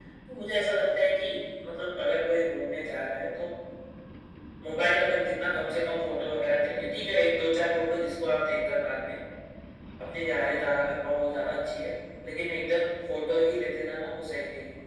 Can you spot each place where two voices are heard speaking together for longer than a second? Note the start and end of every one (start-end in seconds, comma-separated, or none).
none